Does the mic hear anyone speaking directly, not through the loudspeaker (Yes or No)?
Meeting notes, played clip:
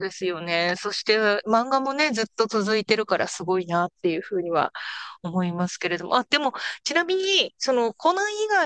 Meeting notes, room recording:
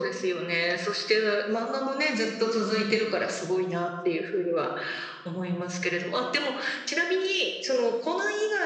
No